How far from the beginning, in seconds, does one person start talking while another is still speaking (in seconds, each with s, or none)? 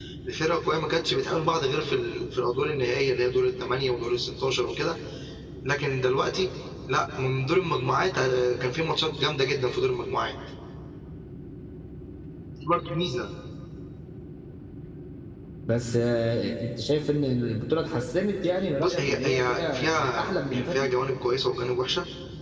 18.8 s